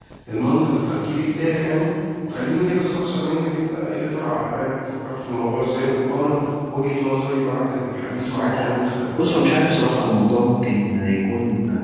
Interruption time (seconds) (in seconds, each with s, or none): none